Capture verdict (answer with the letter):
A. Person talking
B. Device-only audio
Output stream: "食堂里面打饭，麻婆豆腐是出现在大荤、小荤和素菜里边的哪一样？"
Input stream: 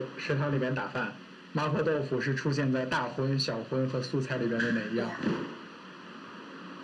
A